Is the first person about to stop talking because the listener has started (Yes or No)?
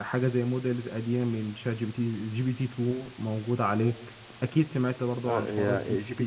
Yes